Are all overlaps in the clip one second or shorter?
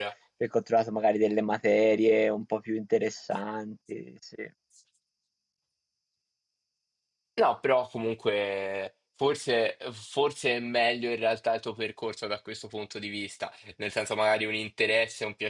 Yes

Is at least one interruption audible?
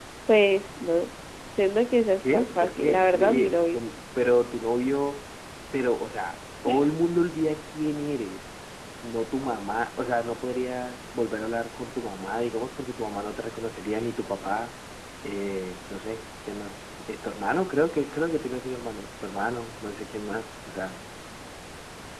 Yes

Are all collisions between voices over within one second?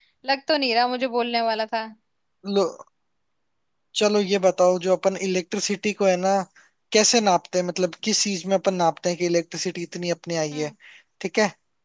Yes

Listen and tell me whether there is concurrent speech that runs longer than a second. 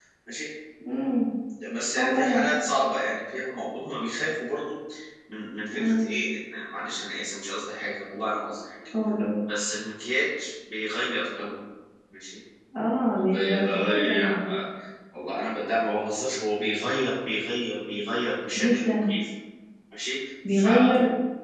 Yes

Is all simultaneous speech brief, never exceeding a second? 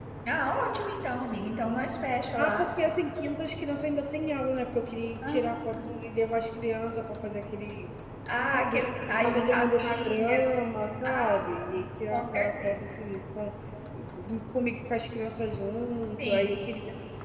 No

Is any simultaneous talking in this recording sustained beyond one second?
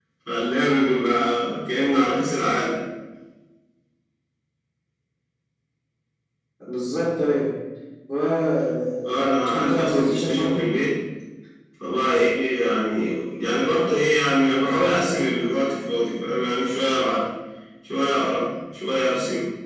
Yes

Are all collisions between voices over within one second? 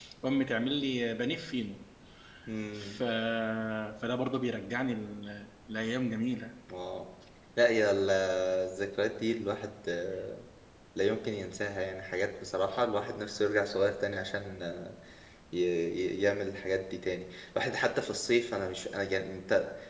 Yes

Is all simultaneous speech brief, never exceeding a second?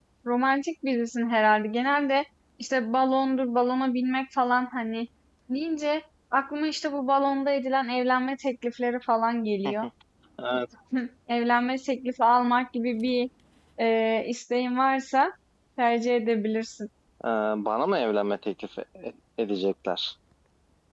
Yes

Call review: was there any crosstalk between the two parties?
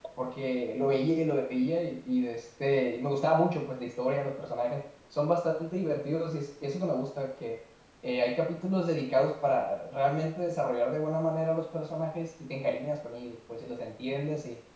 No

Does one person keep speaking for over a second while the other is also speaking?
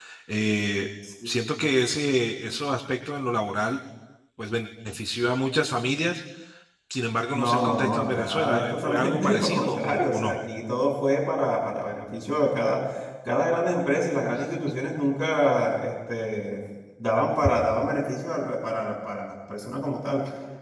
Yes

